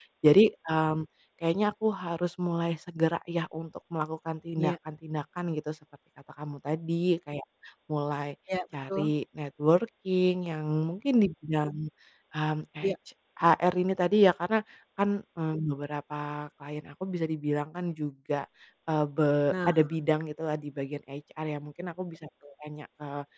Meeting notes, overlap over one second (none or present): none